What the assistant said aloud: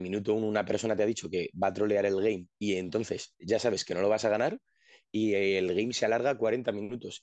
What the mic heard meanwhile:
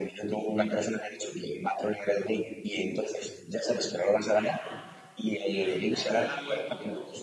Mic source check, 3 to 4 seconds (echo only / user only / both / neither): echo only